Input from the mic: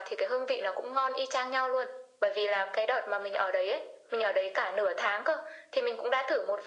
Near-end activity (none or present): none